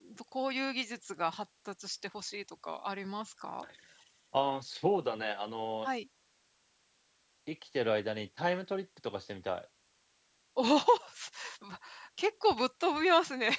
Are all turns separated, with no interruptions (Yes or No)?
Yes